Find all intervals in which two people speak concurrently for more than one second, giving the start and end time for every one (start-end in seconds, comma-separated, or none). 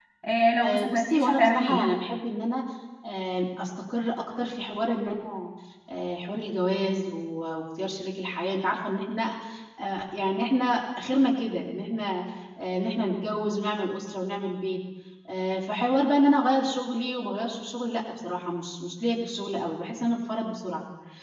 0.6-2.0